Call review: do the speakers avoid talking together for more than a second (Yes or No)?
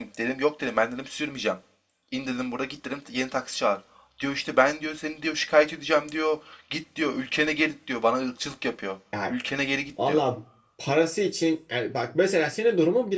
Yes